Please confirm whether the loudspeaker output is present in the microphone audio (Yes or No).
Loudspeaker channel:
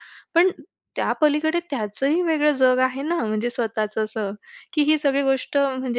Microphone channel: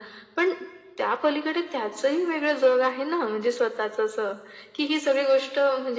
Yes